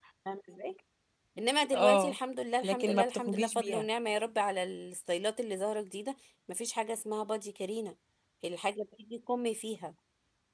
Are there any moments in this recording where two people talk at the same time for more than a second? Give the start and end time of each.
2.6-3.8

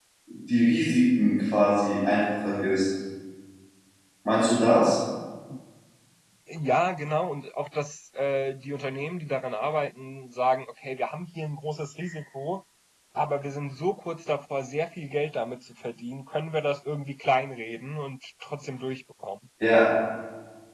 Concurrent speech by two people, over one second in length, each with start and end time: none

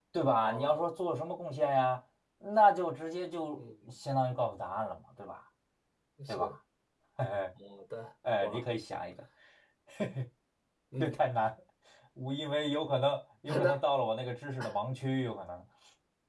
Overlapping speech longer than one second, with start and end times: none

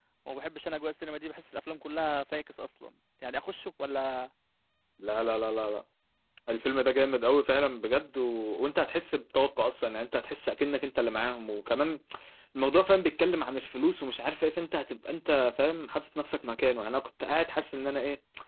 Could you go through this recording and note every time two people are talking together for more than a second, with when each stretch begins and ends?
none

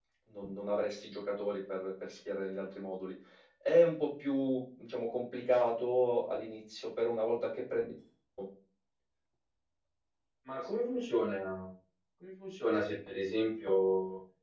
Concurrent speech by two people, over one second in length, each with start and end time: none

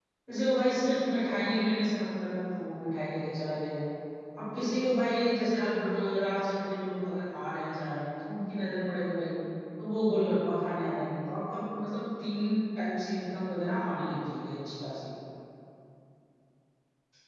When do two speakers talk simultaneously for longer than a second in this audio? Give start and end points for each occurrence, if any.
none

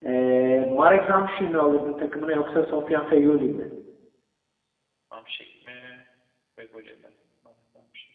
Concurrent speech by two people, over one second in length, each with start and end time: none

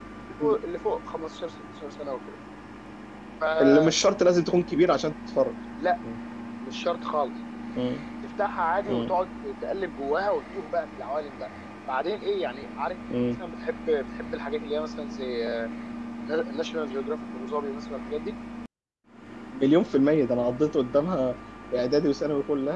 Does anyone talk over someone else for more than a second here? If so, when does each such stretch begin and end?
none

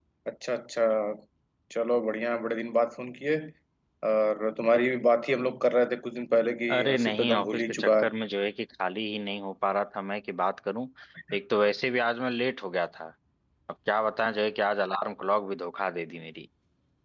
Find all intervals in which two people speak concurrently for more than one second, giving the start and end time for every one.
6.7-8.0

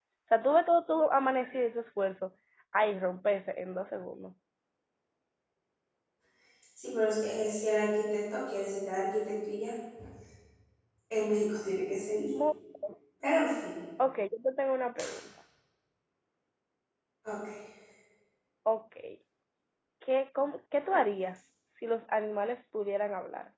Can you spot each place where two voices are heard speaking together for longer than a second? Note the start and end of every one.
none

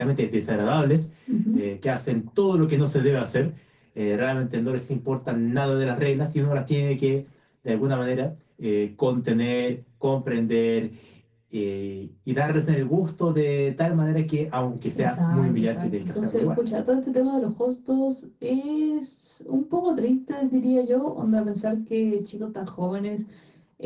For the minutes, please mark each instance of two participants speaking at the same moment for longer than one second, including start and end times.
15.0-16.5

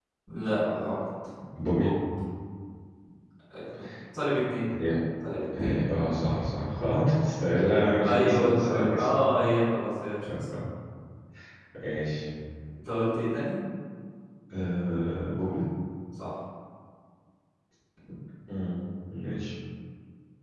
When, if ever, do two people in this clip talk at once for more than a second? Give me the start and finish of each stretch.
8.0-9.2

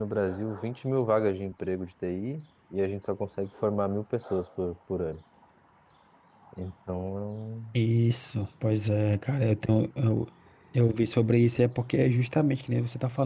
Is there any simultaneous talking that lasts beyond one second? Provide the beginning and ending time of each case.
none

